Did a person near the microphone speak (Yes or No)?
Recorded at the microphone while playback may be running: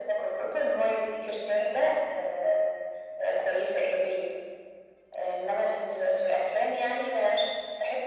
No